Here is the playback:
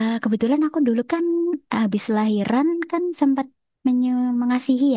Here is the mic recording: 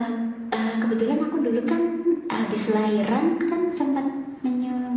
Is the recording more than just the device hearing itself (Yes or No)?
No